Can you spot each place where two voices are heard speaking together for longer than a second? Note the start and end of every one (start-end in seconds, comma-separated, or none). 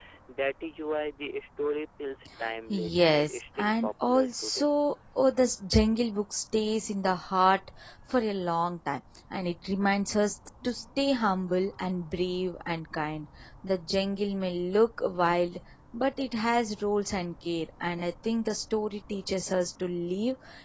2.7-4.7